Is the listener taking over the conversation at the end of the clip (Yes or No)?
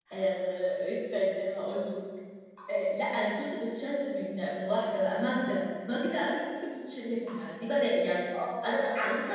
No